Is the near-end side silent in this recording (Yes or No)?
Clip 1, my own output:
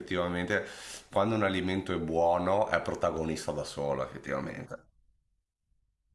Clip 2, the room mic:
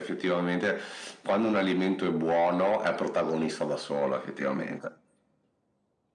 Yes